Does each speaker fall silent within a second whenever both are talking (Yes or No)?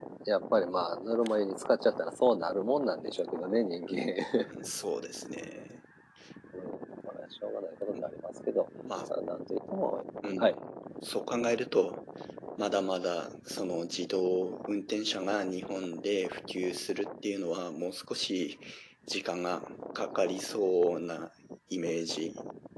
Yes